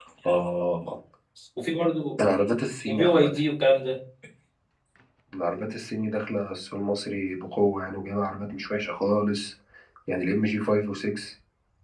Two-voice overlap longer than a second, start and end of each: none

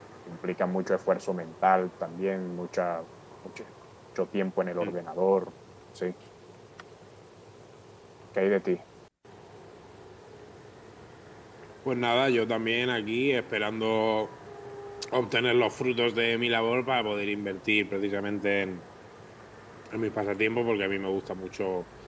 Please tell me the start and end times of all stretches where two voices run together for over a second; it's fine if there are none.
none

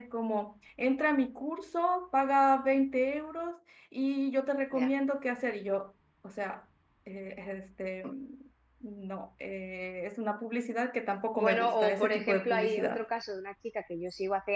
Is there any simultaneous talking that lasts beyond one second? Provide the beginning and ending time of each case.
11.4-13.1

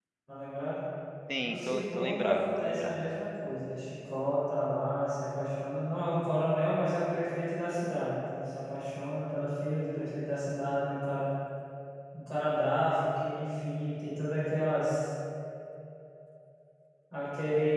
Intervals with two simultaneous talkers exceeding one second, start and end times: 1.4-3.0

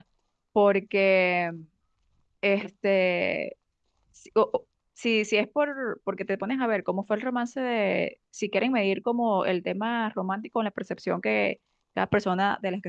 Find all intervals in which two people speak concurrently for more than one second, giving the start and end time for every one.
none

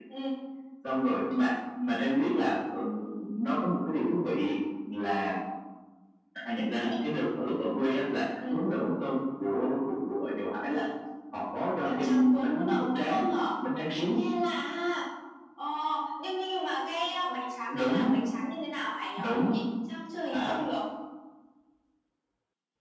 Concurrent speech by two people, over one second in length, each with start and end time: 11.8-13.2

